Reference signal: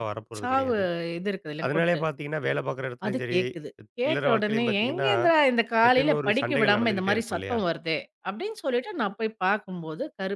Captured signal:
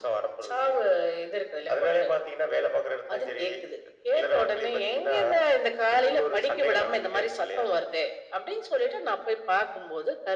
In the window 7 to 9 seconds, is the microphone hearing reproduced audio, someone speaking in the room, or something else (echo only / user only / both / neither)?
echo only